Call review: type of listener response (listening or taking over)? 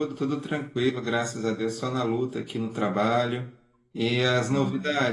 listening